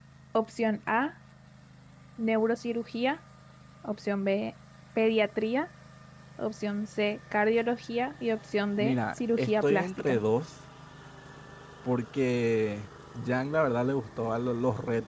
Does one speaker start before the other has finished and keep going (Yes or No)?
Yes